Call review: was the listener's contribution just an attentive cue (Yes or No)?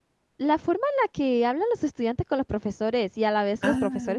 Yes